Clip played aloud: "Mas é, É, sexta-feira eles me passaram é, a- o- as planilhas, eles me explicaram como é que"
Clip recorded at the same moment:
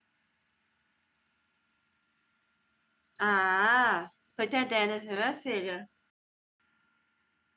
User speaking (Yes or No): Yes